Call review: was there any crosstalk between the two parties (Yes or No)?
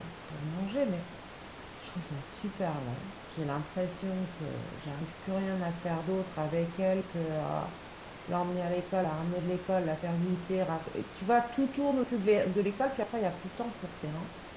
No